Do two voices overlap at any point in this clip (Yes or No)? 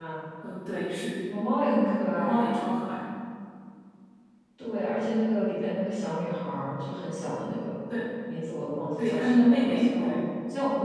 Yes